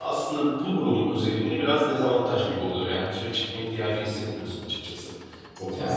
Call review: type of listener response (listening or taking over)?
taking over